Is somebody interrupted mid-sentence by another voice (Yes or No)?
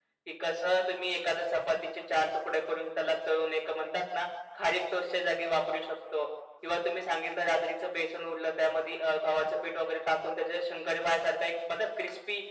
No